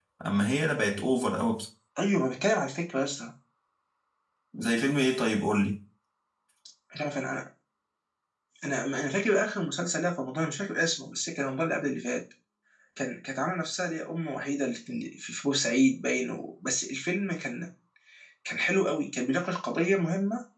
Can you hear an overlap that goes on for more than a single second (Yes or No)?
No